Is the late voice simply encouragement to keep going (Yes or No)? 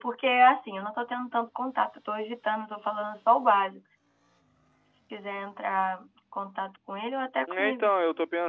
No